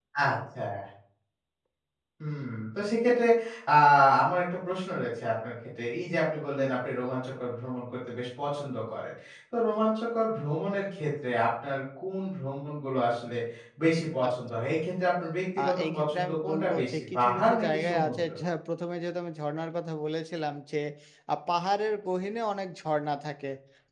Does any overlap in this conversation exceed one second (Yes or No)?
Yes